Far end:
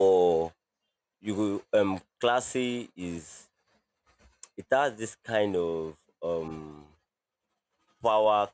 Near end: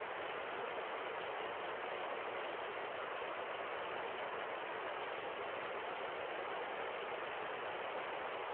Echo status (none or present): none